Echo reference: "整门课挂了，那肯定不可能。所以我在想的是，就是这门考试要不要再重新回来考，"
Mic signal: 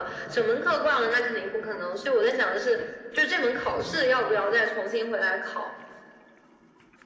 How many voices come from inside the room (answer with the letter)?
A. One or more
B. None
B